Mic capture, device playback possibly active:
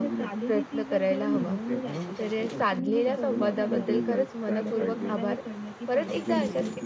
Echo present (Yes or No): Yes